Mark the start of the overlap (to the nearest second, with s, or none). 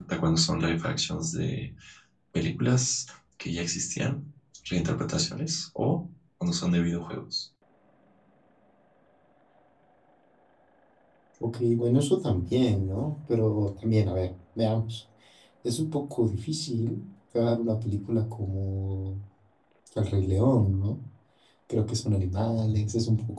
none